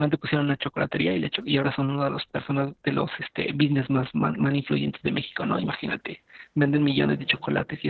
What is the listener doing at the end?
listening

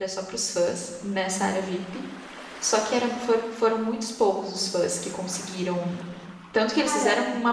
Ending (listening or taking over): listening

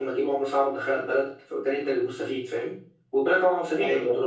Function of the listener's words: listening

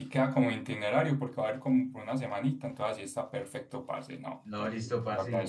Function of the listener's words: taking over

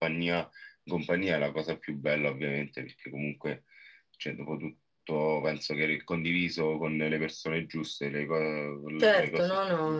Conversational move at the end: taking over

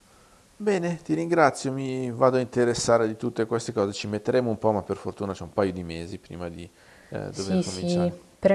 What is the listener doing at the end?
taking over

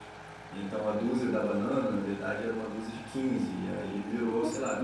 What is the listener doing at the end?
listening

